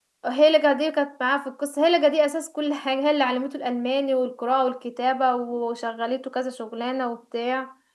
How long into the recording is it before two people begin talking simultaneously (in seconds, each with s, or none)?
none